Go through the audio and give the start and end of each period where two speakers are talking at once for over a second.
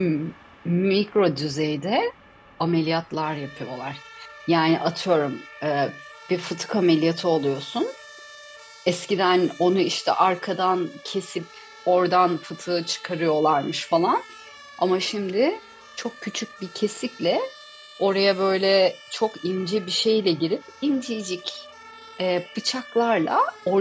none

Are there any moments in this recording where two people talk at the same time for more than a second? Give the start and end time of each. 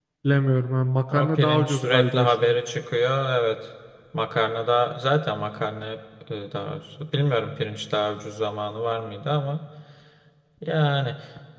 1.1-2.6

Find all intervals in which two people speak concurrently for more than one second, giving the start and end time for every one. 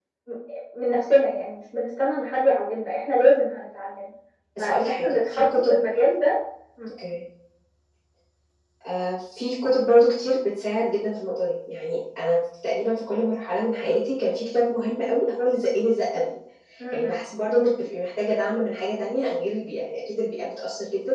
4.6-5.8

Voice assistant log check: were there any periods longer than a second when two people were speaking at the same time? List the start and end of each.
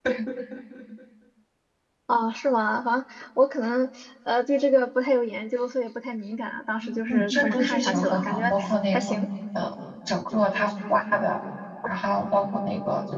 6.8-9.2

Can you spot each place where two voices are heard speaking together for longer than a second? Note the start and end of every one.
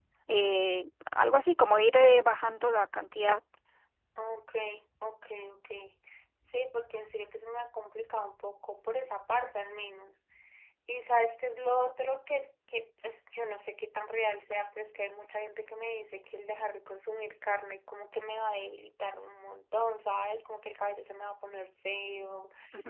none

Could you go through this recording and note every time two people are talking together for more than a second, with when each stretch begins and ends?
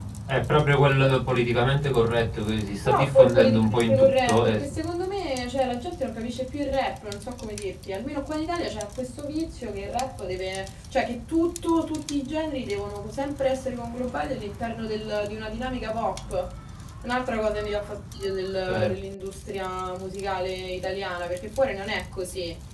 2.8-4.6

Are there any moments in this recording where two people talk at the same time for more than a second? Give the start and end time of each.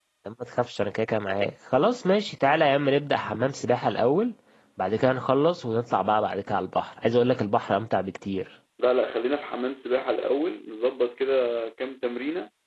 none

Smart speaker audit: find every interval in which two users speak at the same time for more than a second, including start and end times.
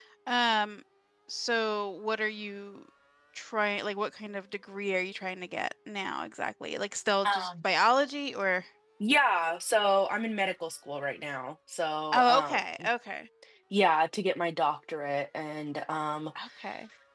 none

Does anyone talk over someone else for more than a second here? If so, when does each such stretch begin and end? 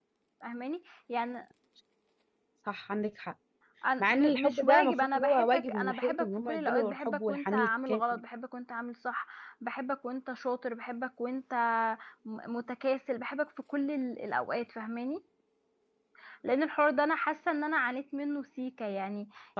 4.0-8.0

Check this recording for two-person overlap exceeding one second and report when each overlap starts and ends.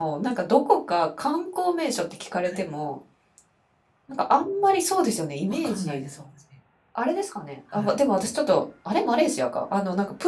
none

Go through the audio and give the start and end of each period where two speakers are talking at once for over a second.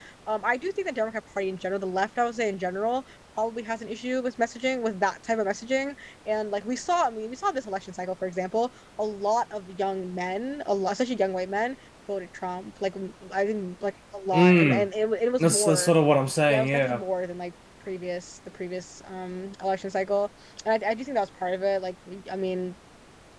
none

